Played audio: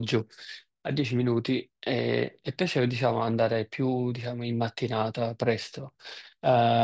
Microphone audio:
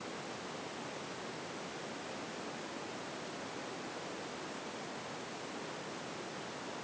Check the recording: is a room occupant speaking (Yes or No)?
No